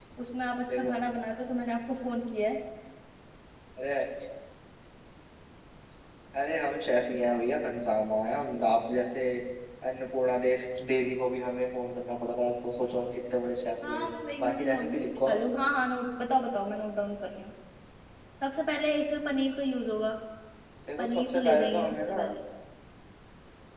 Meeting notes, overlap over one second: present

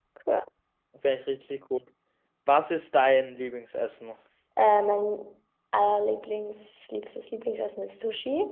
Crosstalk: none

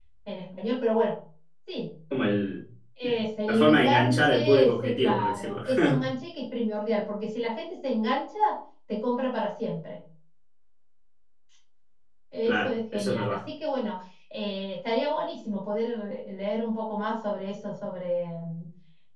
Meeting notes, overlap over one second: present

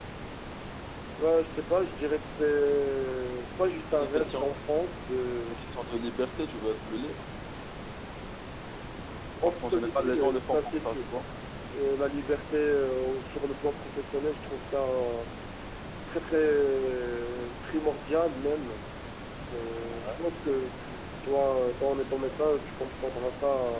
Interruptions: present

